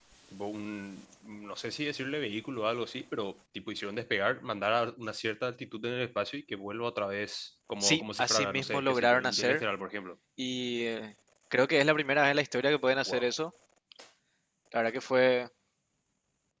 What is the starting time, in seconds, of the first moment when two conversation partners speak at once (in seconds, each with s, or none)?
7.8 s